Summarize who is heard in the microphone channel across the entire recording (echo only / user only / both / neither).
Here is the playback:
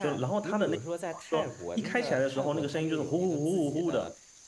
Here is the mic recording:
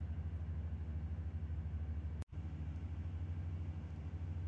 neither